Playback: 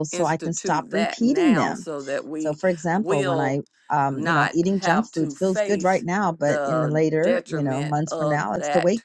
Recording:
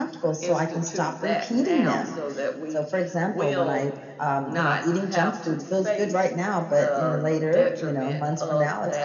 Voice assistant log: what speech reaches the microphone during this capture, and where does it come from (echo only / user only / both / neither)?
echo only